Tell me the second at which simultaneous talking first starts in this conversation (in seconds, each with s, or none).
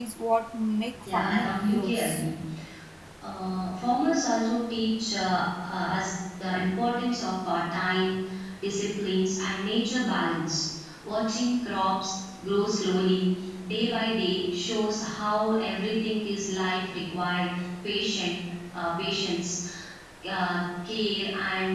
1.0 s